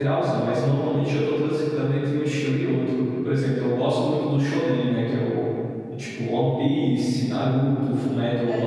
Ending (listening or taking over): listening